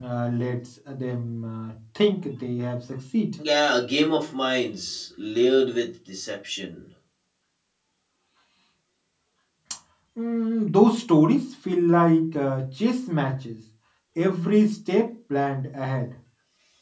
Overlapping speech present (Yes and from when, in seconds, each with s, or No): No